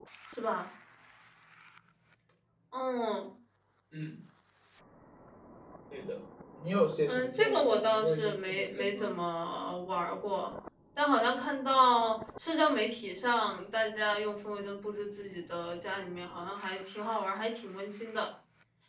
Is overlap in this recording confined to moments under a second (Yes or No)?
No